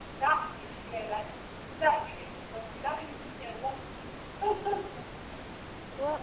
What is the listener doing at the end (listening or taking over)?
taking over